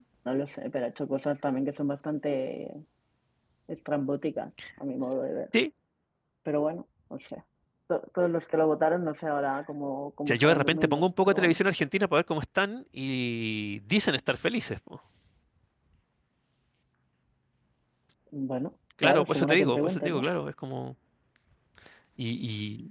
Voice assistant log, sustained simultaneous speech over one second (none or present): present